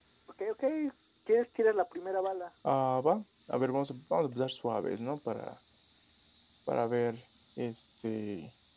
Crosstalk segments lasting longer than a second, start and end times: none

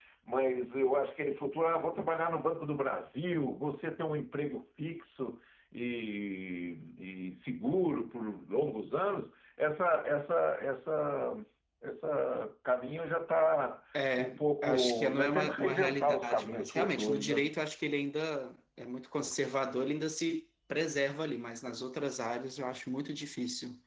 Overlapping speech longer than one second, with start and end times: 14.2-17.4

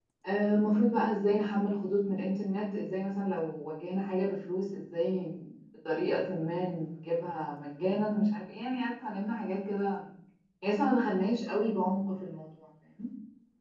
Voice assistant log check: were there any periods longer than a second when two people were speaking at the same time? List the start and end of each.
none

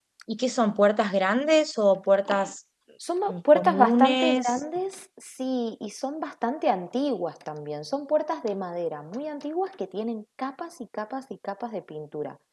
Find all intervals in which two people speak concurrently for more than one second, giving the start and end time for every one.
3.3-4.6

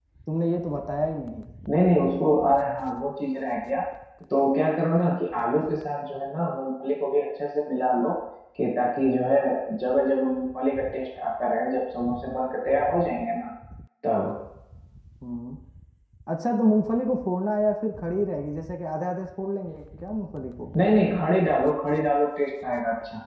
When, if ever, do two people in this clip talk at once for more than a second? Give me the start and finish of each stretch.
none

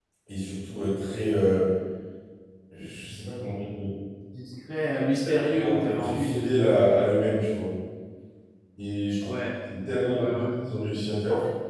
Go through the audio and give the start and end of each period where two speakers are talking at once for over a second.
5.2-6.8

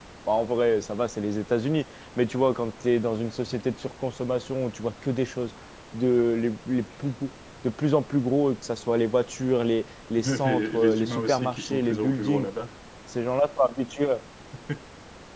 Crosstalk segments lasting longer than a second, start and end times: 10.2-12.5

